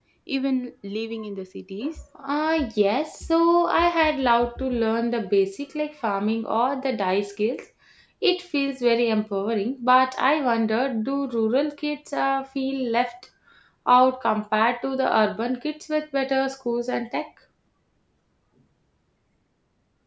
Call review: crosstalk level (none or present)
none